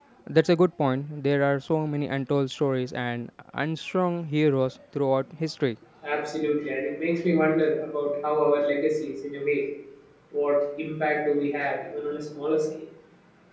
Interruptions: none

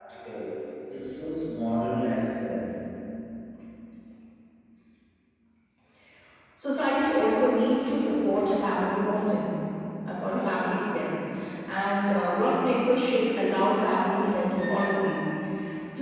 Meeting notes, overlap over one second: none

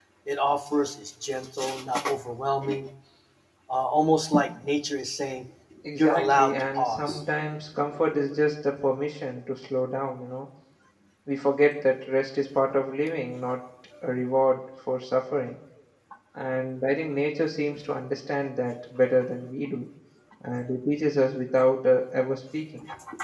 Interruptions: present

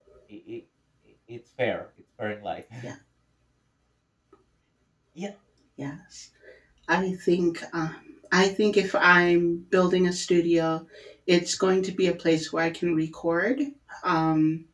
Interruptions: none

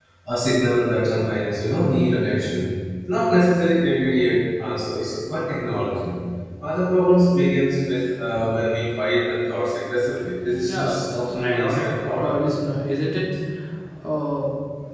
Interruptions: present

